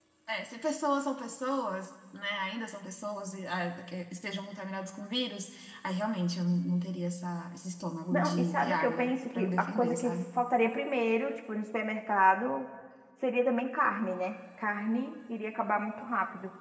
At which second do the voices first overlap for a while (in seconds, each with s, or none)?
8.1 s